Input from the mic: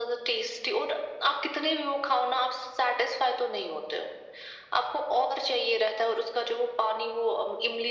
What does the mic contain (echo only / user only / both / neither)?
echo only